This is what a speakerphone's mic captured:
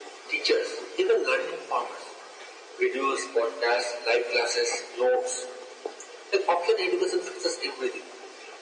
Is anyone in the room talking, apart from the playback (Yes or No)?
No